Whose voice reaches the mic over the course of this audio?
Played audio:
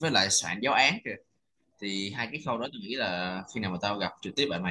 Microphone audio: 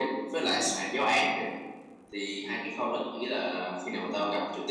echo only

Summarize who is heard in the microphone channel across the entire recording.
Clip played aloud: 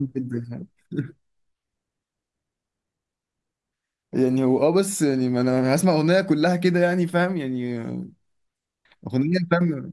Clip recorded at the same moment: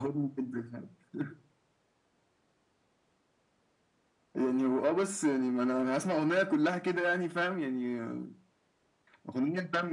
echo only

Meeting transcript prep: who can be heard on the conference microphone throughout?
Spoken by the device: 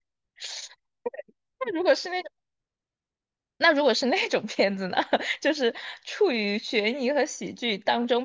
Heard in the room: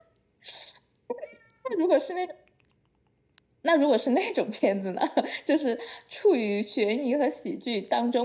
echo only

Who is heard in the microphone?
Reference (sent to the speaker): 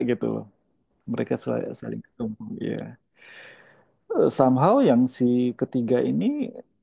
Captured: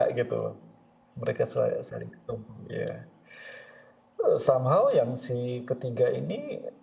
echo only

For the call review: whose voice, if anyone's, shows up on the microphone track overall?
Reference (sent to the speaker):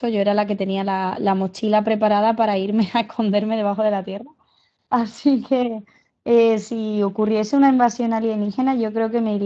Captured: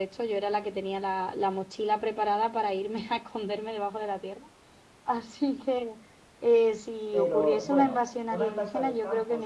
both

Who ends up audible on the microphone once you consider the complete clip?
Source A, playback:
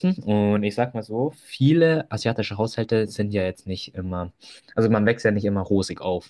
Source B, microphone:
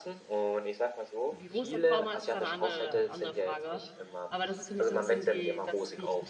both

